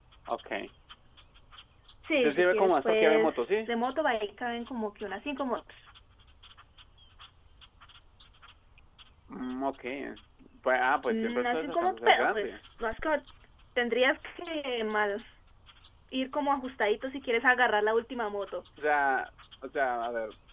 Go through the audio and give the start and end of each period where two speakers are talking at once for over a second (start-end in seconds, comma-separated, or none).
2.2-3.4, 11.1-12.6